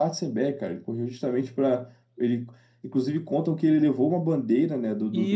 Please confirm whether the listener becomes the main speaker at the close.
Yes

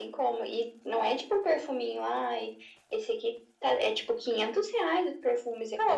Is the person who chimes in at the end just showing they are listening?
No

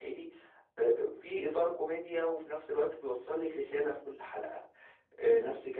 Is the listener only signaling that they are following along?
Yes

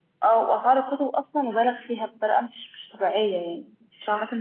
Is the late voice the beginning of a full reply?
No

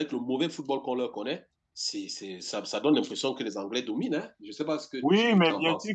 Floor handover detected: Yes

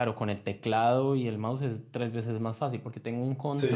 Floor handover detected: No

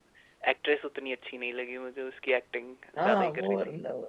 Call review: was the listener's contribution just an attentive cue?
No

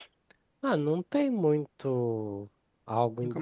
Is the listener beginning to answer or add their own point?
No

